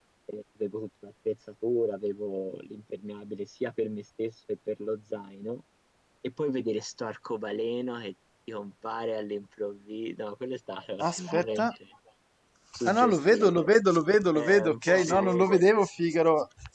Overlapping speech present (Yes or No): Yes